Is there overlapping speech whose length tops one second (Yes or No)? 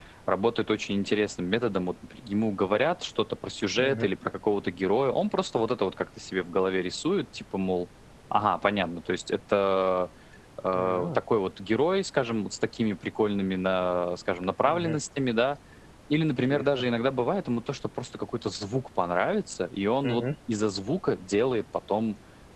No